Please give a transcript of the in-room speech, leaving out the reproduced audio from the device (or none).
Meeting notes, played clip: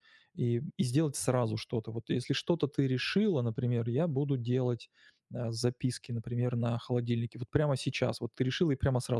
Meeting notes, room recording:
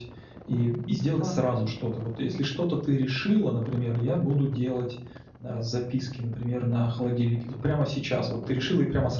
Поняла.